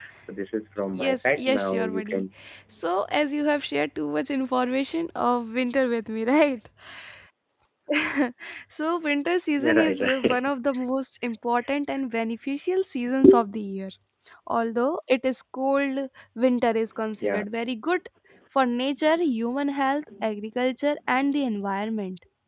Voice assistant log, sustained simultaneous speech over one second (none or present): present